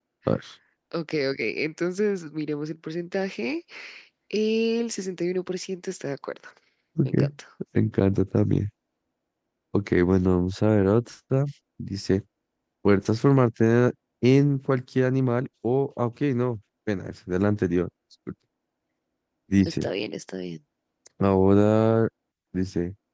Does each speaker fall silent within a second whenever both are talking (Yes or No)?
Yes